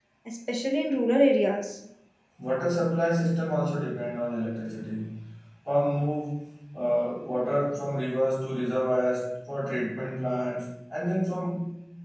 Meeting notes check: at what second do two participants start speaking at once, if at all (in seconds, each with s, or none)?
none